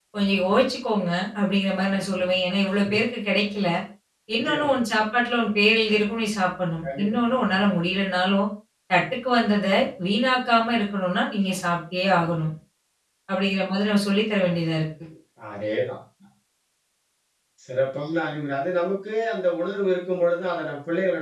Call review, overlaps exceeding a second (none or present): none